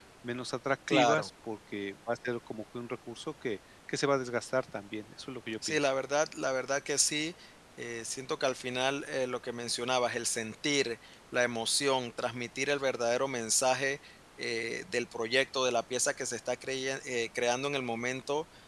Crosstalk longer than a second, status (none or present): none